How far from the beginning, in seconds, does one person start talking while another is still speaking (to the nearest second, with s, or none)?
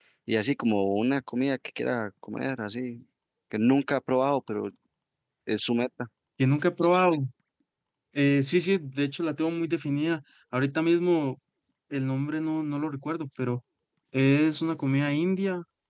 none